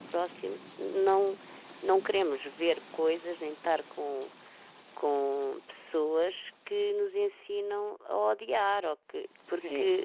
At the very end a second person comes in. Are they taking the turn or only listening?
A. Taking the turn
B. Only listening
A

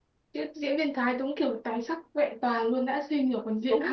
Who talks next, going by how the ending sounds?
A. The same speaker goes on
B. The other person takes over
B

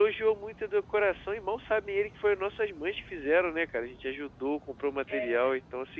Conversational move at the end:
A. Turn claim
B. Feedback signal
B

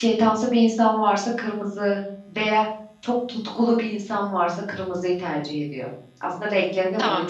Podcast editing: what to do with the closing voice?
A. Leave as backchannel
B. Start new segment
B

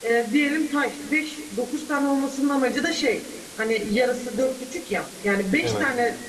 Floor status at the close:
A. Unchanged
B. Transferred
A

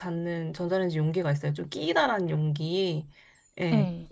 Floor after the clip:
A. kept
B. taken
A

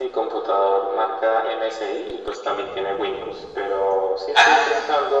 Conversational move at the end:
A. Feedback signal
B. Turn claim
A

